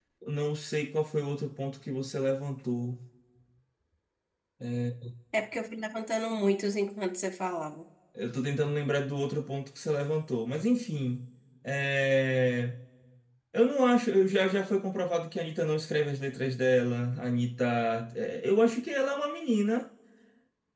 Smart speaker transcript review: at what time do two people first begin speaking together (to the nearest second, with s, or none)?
none